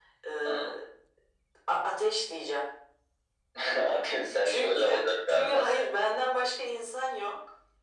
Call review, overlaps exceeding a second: present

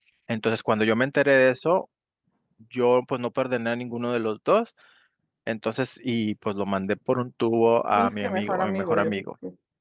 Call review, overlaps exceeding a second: present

